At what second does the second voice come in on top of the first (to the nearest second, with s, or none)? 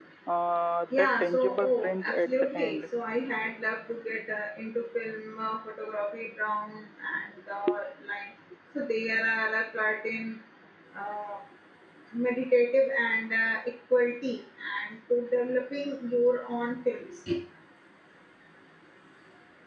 1 s